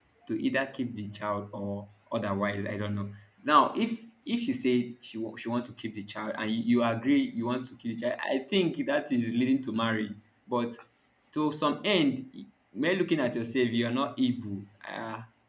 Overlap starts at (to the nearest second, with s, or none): none